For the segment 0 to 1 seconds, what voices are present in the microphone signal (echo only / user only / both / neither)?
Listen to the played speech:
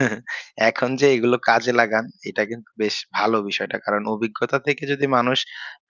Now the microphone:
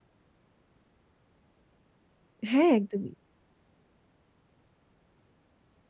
neither